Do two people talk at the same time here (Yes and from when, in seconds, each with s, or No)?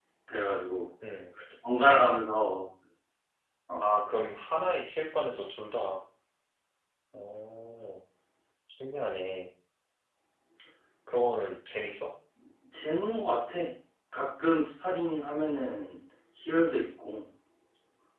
No